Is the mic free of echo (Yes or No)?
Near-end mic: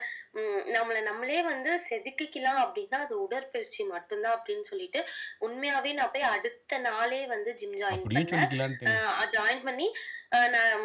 No